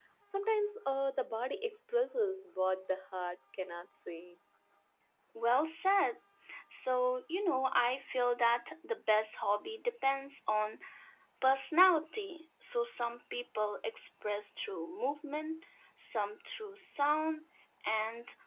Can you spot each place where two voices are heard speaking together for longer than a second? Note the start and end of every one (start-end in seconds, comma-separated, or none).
none